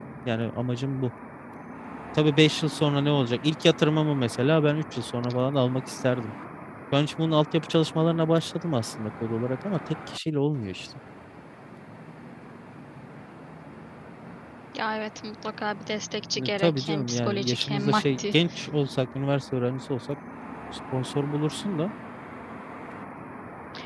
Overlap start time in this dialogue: 16.4 s

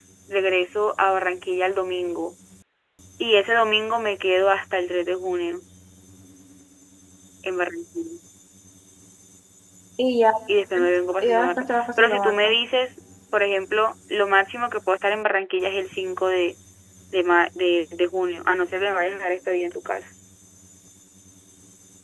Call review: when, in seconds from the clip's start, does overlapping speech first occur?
11.2 s

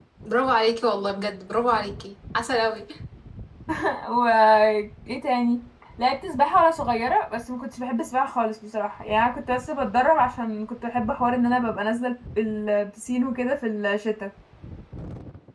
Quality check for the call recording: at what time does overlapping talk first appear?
none

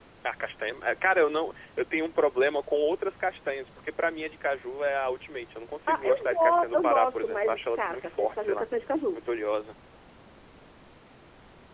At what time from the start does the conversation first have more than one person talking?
5.9 s

